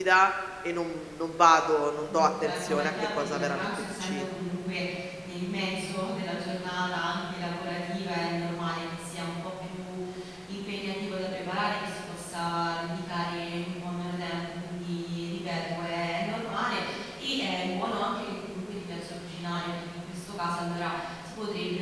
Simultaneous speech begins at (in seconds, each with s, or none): 2.1 s